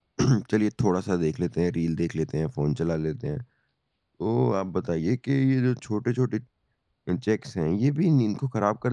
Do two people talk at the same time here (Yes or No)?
No